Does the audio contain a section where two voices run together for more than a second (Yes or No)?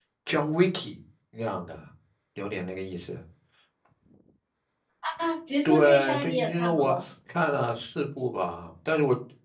Yes